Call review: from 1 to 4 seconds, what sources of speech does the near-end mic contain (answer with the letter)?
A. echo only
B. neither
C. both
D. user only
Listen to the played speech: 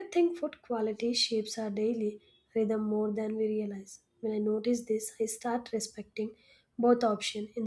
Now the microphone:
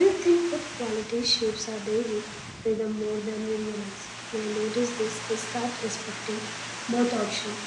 A